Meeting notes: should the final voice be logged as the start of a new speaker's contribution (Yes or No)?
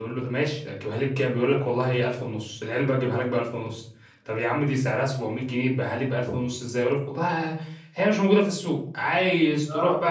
No